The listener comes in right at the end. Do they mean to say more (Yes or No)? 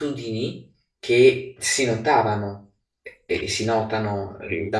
No